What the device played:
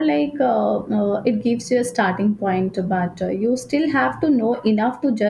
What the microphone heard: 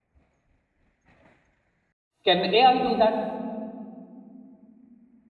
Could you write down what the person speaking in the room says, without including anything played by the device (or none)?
Can AI do that?